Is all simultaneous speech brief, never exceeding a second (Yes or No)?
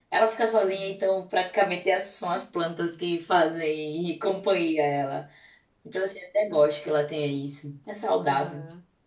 Yes